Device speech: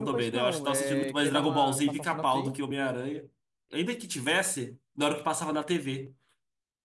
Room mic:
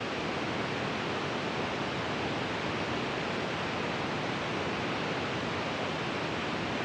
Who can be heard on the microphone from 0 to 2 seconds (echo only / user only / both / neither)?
neither